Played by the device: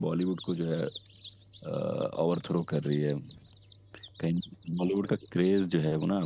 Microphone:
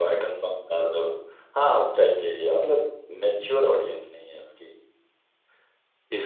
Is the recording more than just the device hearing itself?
Yes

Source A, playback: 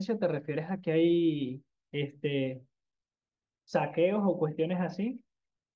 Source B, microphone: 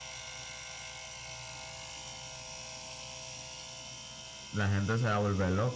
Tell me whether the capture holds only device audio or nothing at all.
No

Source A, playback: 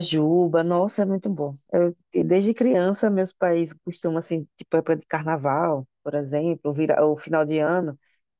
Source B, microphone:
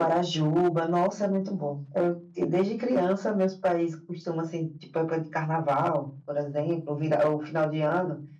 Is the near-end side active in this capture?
No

